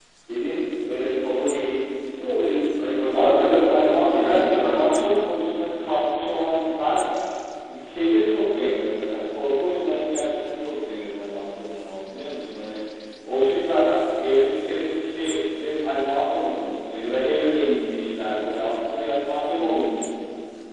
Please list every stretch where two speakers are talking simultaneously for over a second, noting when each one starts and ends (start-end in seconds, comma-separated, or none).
3.1-4.9